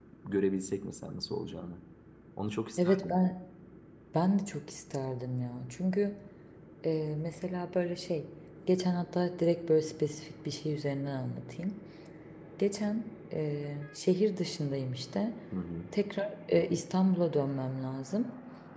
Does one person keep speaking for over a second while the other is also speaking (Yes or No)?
No